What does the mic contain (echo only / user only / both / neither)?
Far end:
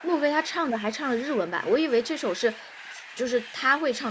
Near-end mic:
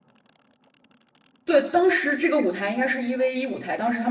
user only